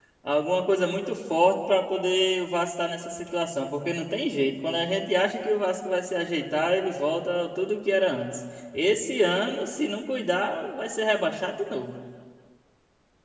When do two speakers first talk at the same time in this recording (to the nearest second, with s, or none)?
none